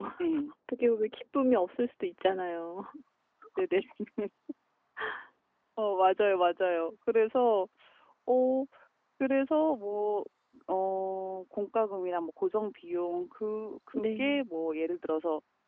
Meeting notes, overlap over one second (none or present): none